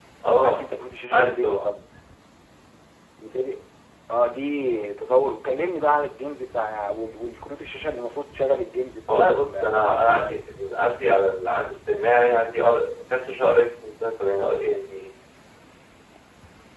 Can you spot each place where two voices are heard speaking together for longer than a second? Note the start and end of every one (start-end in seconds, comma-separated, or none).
9.1-10.4